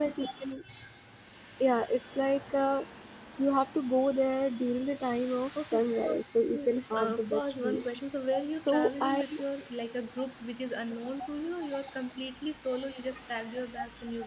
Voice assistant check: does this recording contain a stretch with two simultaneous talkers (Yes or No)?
Yes